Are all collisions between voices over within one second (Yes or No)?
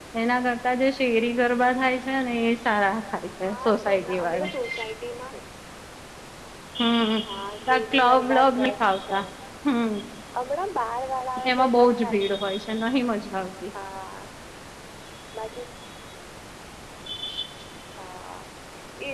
No